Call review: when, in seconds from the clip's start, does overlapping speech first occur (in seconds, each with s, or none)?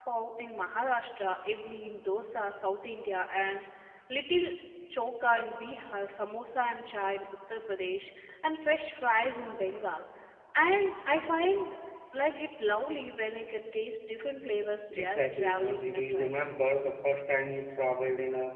14.9 s